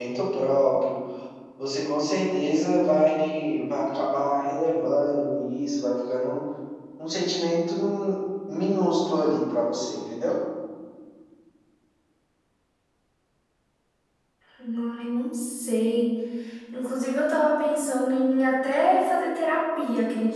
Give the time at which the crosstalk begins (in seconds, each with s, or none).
none